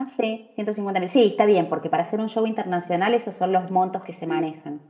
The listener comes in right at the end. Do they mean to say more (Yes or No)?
Yes